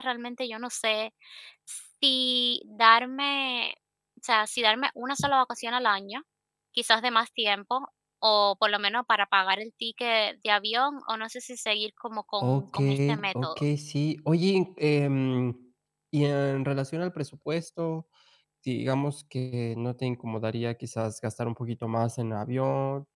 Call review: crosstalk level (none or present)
present